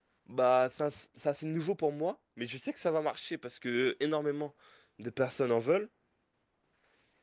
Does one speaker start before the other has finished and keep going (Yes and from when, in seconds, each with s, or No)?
No